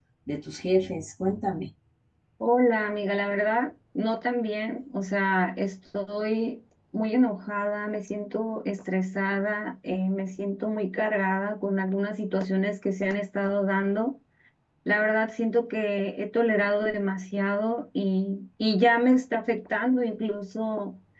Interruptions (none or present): none